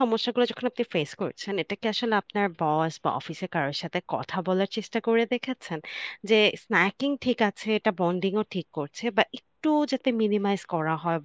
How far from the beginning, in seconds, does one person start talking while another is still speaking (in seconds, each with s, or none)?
none